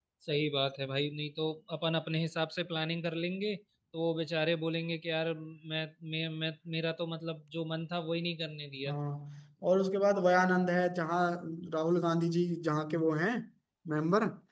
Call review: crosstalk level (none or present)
none